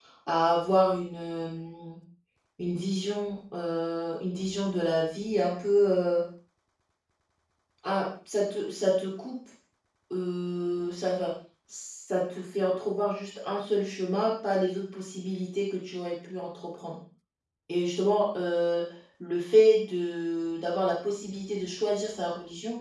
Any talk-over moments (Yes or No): No